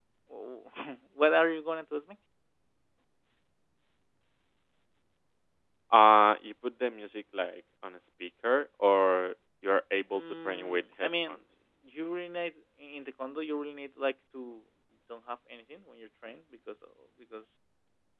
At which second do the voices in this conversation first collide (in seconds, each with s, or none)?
10.1 s